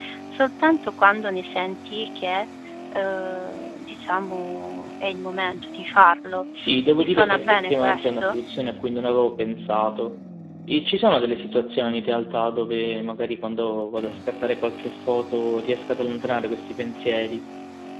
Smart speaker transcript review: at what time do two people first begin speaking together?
7.0 s

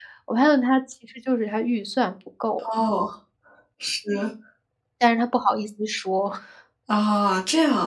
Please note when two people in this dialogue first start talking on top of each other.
none

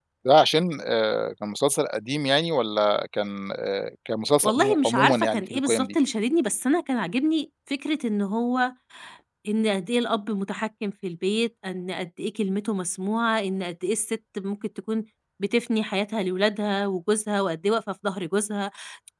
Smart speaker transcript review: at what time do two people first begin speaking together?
4.4 s

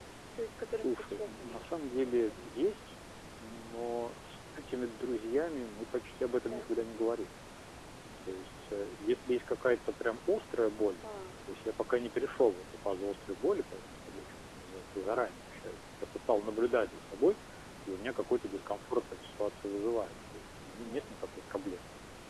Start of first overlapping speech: 0.8 s

